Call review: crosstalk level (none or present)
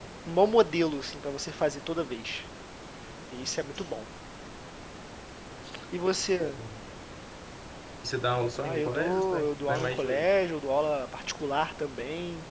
present